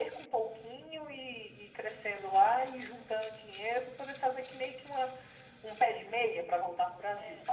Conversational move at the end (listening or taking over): taking over